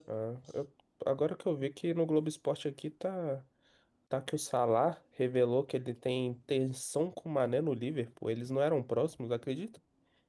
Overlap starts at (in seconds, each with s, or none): none